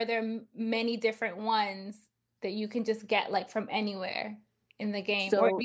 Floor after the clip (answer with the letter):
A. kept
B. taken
A